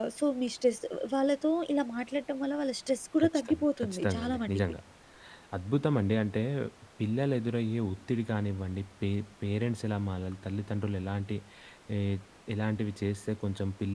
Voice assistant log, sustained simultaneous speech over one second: present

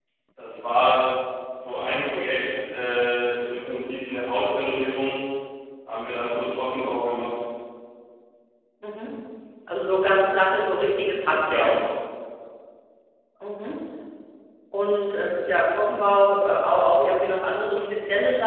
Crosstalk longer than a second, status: none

